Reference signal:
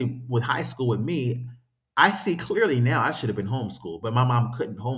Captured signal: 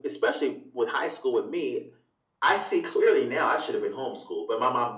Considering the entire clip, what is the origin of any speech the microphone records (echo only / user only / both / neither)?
echo only